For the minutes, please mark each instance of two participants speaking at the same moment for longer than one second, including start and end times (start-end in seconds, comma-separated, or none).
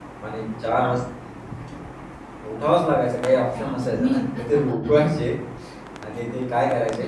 3.5-5.1